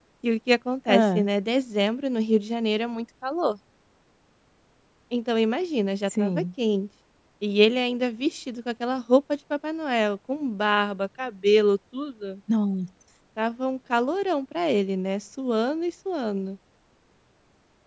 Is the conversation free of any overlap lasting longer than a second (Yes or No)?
Yes